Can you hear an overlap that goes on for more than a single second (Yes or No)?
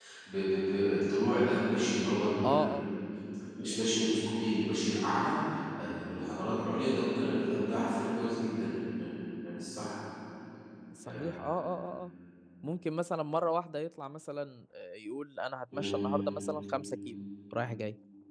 No